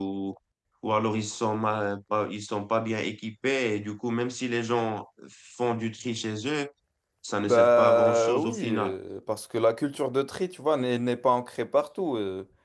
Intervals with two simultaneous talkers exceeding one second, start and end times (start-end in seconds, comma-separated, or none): 7.5-8.9